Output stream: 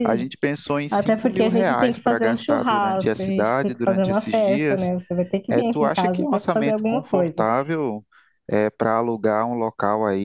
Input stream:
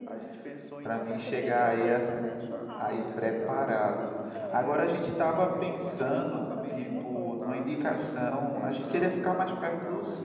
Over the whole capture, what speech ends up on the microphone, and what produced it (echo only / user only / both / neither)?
both